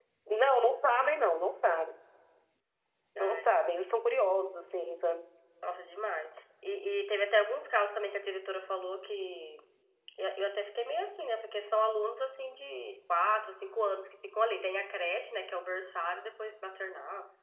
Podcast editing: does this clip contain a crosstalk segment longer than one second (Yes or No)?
No